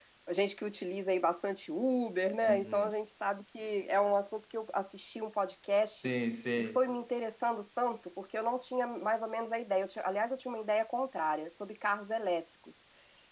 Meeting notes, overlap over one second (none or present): none